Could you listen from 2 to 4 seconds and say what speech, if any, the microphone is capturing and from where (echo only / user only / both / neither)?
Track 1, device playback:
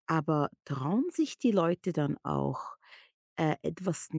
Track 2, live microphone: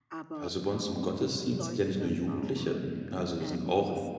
both